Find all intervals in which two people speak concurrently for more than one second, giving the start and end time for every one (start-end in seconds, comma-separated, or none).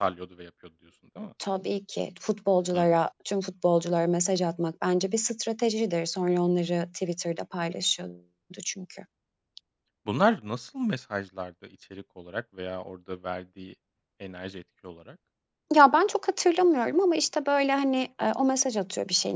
none